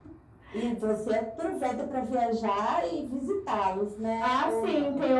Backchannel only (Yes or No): No